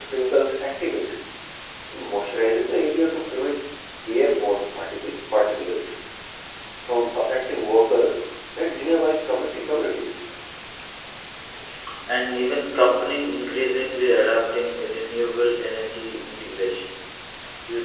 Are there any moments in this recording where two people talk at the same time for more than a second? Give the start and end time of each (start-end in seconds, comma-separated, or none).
none